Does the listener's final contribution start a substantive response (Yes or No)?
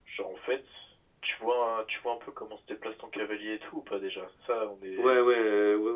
Yes